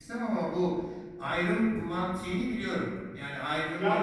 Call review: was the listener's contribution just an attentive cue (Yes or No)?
No